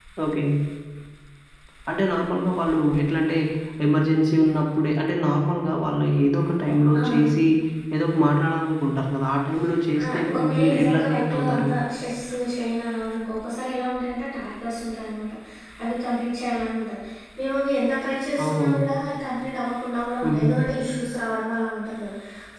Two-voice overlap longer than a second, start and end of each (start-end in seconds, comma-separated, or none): 10.0-11.7